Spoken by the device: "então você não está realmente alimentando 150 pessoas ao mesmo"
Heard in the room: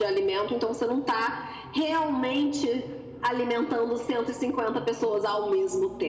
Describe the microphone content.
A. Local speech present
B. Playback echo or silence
B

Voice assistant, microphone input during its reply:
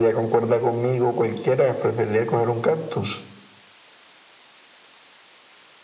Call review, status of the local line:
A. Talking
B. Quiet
B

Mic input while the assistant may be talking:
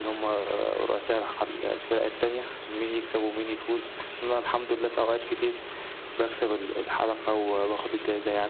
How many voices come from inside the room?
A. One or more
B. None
B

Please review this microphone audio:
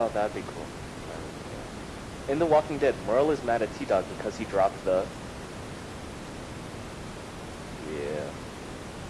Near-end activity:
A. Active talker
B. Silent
B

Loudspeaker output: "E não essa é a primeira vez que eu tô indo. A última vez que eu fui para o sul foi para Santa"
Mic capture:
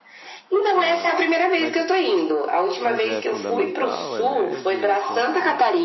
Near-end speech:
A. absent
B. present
B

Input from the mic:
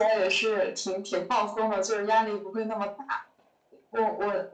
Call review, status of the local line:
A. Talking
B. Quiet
B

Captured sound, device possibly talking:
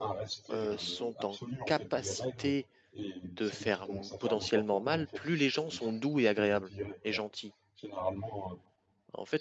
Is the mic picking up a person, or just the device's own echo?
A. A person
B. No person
A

